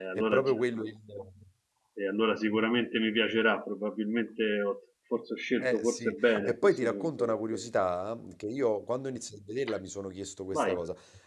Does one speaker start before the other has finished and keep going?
Yes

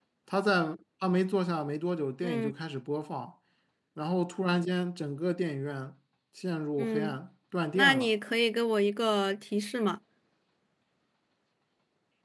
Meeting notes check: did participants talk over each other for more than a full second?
No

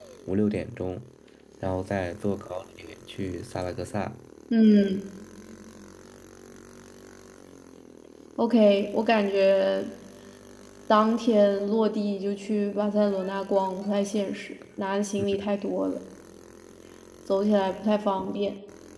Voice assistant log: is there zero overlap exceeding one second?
Yes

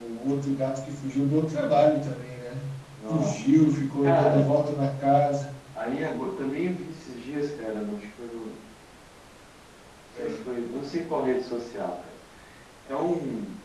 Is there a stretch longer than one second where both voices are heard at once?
No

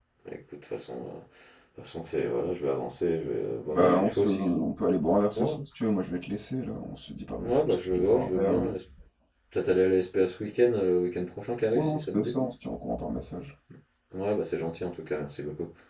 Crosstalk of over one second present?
Yes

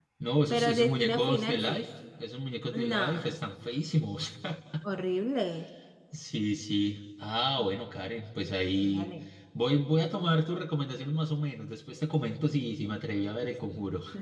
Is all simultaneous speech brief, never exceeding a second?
No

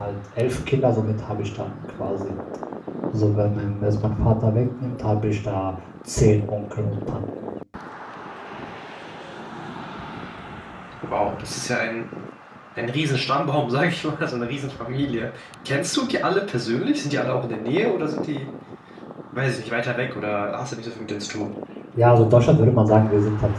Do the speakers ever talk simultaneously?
No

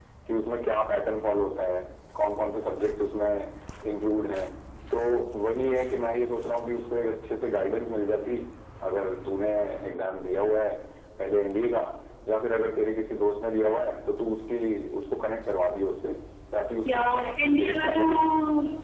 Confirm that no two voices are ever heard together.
No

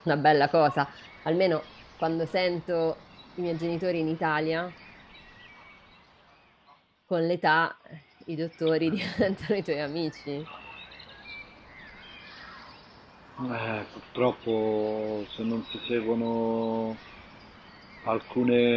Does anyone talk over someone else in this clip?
No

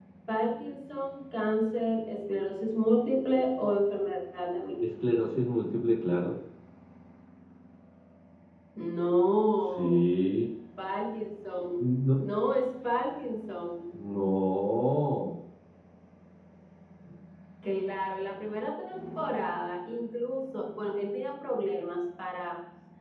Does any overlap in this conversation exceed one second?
No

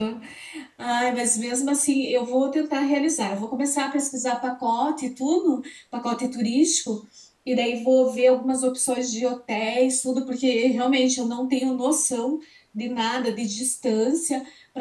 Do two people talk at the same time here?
No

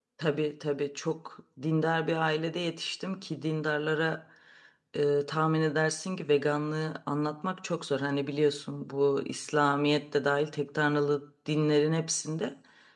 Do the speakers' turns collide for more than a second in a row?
No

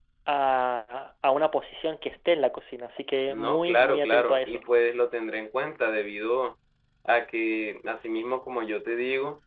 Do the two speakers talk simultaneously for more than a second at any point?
Yes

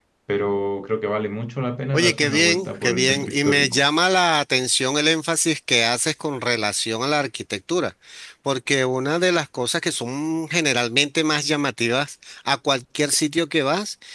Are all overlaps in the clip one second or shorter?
No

